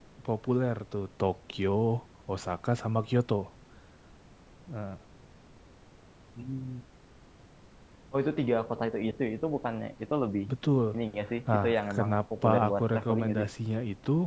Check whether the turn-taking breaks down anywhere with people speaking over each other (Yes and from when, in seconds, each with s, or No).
Yes, from 11.5 s